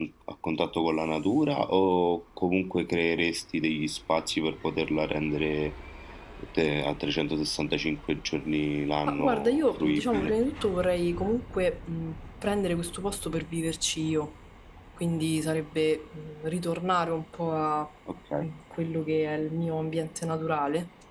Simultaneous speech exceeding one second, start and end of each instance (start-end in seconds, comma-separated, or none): 9.1-10.3